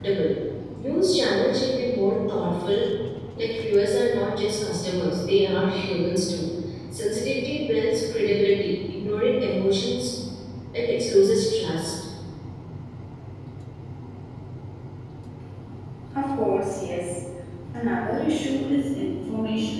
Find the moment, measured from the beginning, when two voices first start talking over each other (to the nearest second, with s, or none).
none